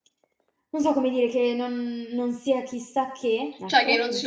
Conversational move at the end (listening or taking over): taking over